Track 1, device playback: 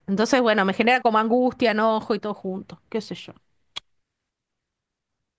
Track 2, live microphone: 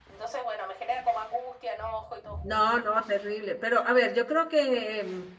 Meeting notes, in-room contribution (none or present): present